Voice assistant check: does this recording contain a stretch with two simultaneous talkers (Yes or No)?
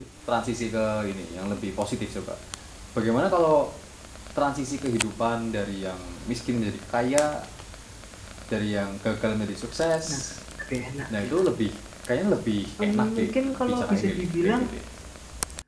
Yes